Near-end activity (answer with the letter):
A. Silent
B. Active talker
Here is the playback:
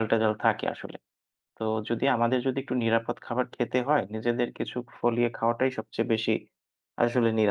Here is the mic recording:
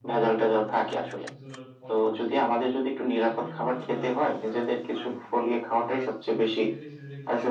B